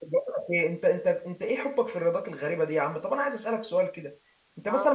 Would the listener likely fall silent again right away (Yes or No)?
Yes